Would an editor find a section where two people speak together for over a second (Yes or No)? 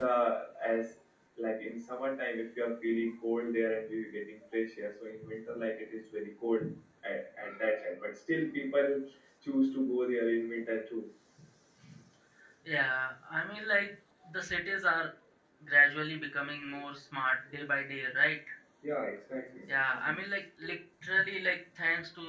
No